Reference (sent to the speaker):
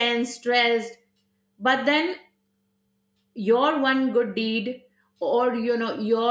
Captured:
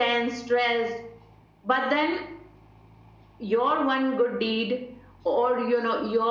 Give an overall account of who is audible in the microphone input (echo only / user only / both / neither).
echo only